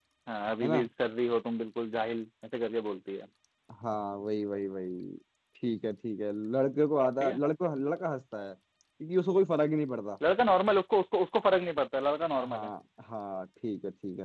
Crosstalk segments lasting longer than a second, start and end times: none

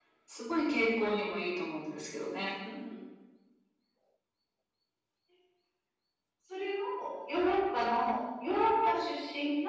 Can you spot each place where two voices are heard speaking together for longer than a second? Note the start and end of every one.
none

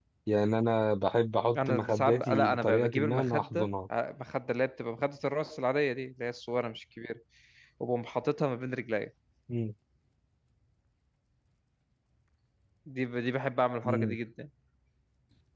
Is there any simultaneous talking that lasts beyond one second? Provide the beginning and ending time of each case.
1.6-3.7

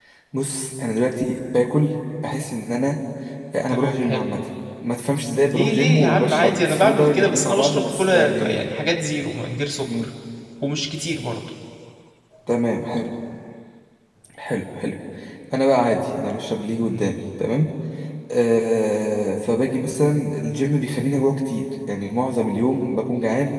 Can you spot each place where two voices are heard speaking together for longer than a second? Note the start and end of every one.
5.5-8.6

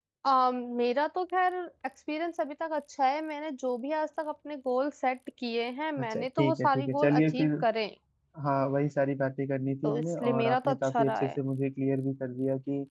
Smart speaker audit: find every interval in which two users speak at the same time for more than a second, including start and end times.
6.0-7.5, 9.8-11.4

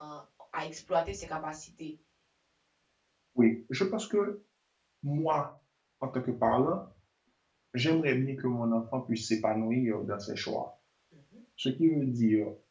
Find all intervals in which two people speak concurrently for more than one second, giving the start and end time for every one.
none

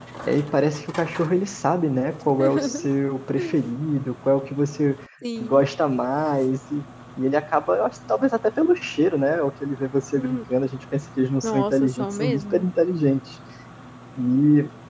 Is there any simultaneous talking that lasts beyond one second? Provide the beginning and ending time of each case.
11.4-12.7

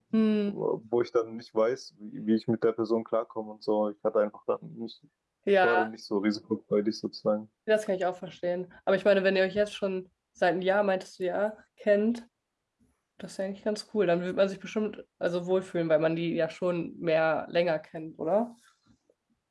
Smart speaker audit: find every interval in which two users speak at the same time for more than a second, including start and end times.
none

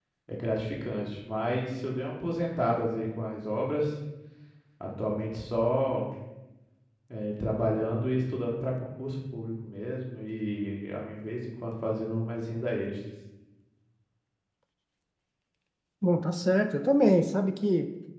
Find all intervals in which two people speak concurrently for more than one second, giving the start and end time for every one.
none

